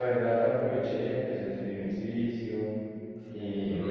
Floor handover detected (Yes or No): No